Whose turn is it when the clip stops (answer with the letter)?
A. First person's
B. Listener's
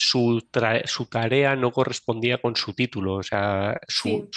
A